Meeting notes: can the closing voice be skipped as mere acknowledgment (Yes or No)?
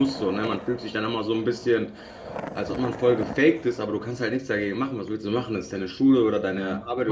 No